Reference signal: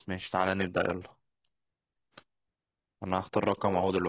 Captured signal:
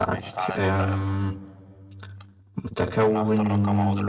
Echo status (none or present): present